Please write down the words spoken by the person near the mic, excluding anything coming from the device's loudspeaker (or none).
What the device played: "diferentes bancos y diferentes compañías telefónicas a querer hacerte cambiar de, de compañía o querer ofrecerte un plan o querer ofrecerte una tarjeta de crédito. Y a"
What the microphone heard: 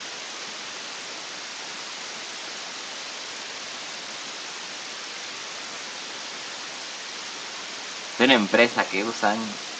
de una empresa que usan,